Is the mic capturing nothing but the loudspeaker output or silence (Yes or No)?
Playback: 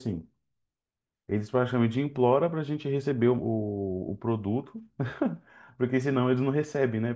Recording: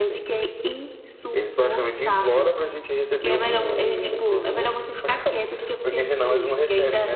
No